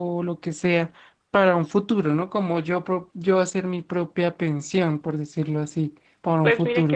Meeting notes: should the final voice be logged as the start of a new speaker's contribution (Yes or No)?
Yes